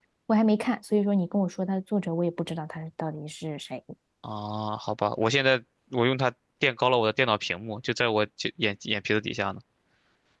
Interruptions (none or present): none